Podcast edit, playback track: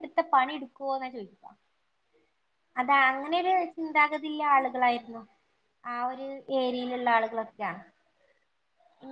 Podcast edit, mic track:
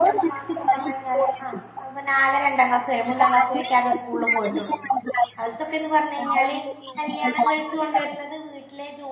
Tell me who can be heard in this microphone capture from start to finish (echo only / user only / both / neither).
both